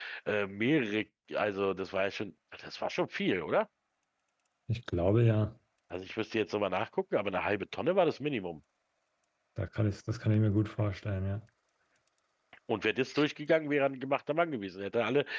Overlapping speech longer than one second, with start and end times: none

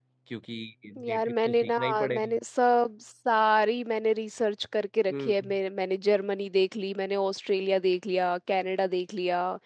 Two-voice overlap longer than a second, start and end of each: 1.0-2.4

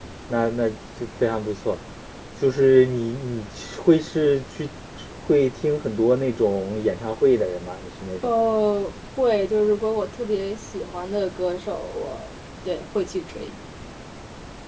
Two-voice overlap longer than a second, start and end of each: none

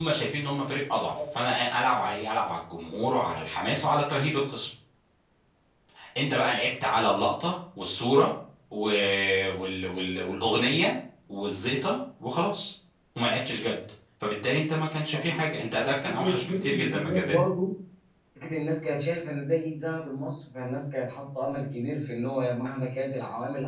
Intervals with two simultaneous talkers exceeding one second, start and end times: 16.0-17.3

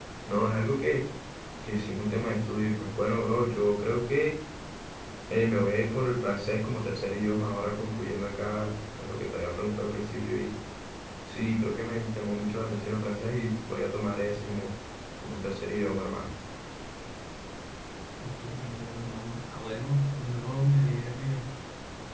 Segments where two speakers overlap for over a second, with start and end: none

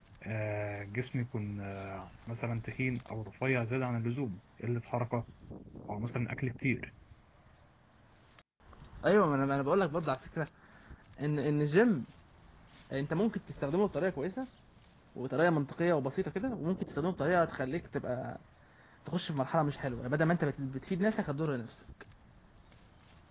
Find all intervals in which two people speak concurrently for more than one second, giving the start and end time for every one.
none

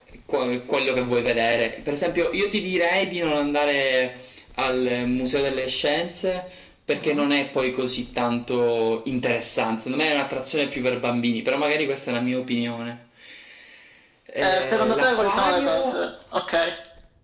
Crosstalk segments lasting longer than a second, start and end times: 14.4-16.0

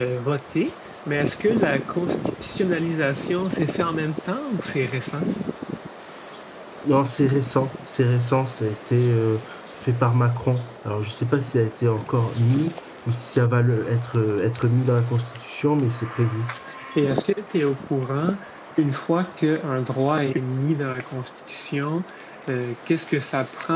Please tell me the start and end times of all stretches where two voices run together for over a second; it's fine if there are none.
none

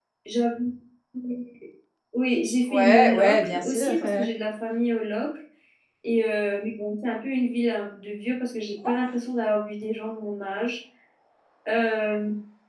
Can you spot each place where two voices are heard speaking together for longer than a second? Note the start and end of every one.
2.7-4.2

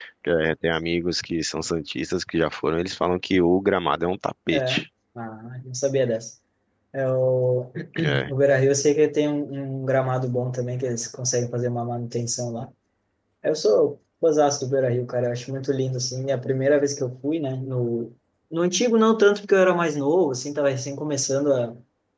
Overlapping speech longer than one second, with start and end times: none

